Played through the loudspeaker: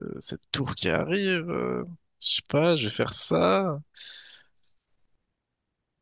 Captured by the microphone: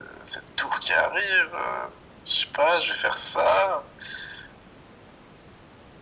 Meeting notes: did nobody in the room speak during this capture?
Yes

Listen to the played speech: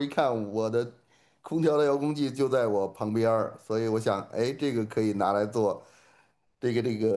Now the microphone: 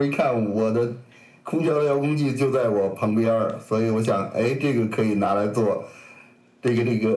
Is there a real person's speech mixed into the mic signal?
No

